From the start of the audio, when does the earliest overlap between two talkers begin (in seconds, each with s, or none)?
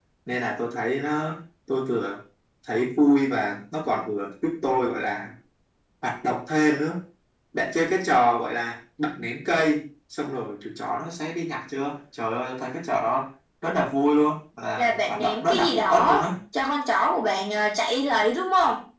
14.8 s